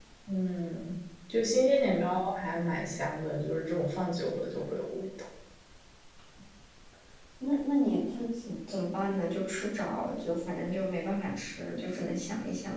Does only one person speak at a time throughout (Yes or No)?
Yes